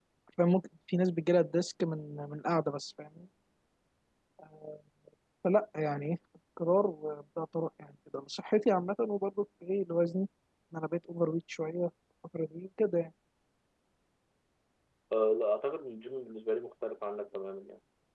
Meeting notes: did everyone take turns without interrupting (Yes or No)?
Yes